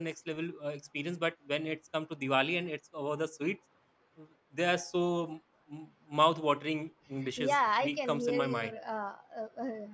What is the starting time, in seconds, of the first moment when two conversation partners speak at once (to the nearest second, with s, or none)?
7 s